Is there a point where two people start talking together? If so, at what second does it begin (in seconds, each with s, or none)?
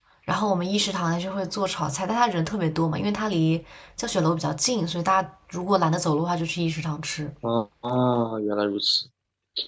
none